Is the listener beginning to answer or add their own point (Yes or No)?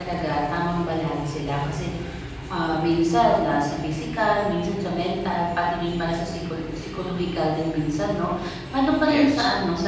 No